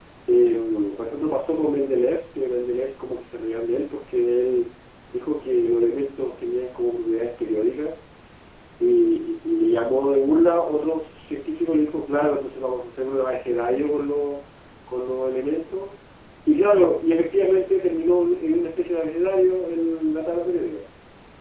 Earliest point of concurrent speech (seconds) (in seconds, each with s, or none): none